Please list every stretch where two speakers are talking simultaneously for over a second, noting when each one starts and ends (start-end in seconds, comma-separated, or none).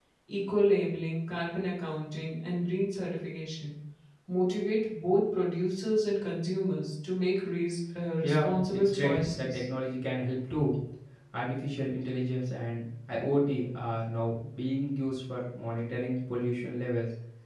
8.2-9.6